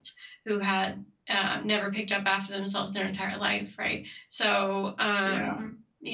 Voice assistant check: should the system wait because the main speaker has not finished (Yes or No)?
Yes